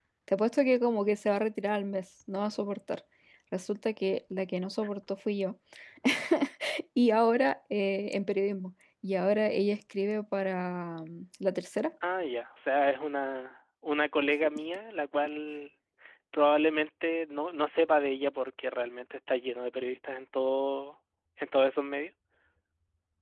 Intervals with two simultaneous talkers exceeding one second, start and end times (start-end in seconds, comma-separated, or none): none